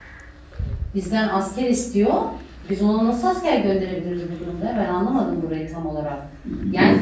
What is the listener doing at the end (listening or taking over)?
listening